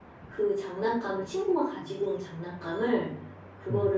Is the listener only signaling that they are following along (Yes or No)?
Yes